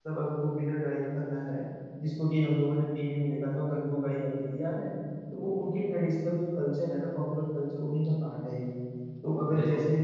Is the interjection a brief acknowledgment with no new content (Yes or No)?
Yes